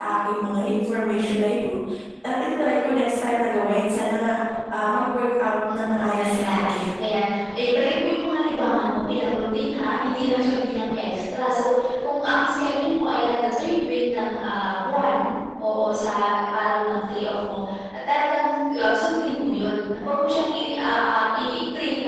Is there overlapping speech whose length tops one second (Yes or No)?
Yes